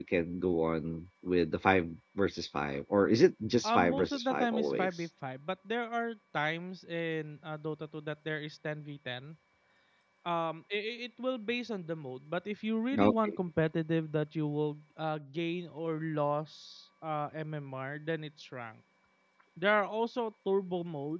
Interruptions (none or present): present